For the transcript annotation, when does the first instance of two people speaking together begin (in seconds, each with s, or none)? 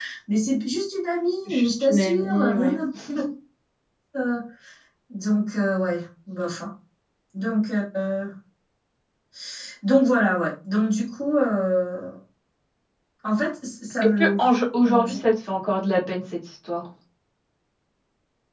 1.5 s